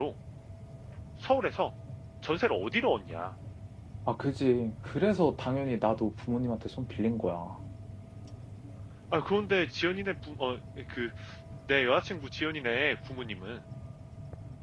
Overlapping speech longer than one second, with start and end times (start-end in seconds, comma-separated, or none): none